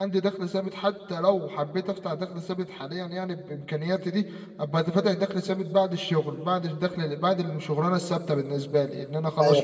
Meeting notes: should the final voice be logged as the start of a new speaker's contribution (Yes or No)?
Yes